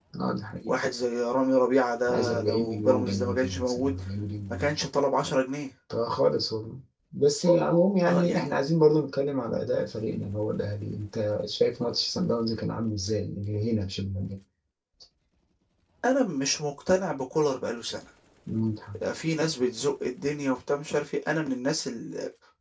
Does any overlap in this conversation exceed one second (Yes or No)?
Yes